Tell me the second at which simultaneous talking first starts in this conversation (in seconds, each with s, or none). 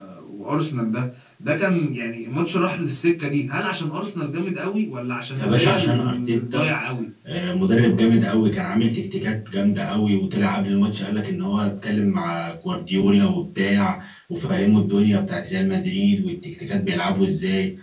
5.3 s